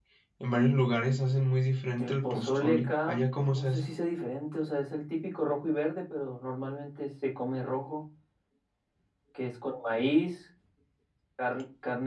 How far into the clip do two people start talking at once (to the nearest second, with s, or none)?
2 s